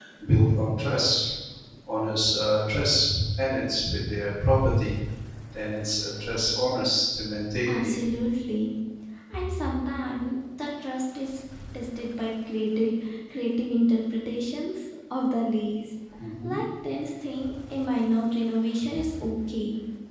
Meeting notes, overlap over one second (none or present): none